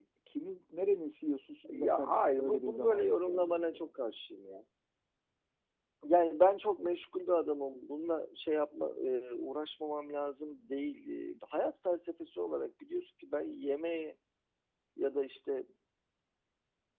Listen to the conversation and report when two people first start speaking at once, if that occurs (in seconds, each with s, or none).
1.6 s